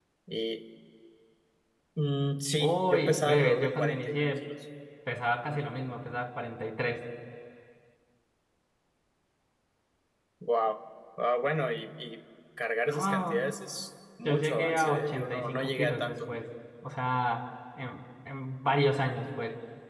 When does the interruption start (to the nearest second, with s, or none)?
3 s